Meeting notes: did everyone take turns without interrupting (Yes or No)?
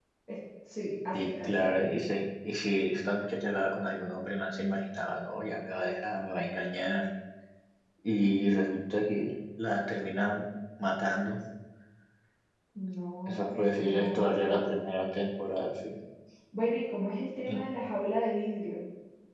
No